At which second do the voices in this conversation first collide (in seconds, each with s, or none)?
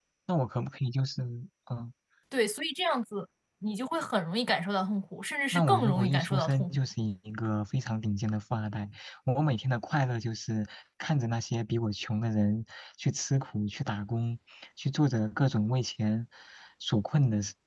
5.5 s